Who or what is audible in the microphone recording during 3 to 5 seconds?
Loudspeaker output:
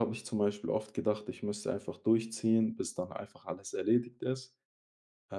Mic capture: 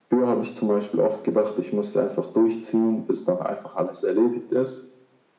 echo only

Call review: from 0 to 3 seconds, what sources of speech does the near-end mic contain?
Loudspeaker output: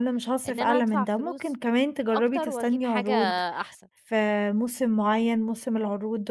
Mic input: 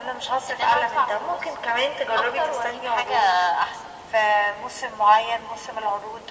echo only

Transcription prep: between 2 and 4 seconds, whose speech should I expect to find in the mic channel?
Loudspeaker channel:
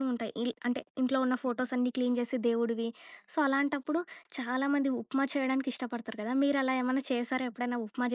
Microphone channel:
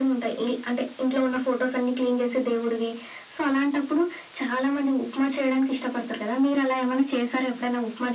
echo only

